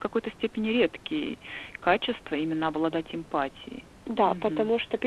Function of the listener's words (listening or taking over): taking over